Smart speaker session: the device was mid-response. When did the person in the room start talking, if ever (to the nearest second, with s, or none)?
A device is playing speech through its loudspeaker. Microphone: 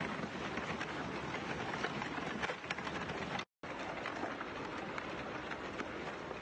none